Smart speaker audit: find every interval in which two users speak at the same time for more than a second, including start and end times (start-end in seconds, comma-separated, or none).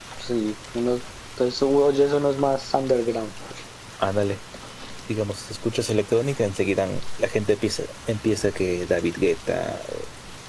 none